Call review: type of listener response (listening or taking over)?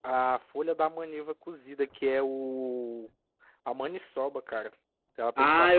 taking over